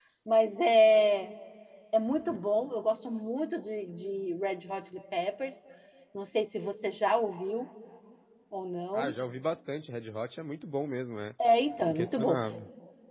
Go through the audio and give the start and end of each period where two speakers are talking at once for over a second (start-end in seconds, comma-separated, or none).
none